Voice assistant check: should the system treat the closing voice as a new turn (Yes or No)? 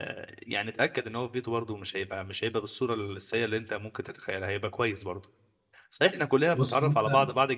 No